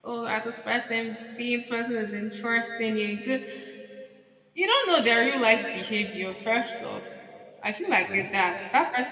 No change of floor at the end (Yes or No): Yes